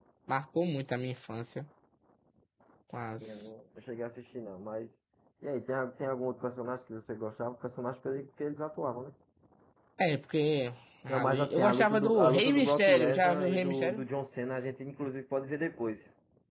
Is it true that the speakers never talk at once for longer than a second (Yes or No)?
No